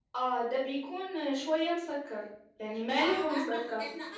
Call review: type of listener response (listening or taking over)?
taking over